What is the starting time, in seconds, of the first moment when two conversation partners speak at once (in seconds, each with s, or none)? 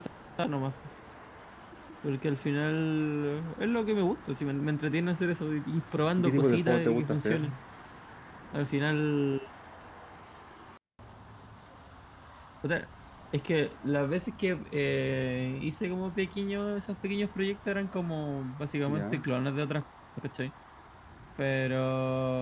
6.2 s